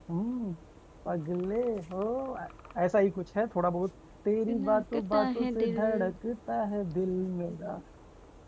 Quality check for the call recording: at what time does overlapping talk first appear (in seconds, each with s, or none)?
4.5 s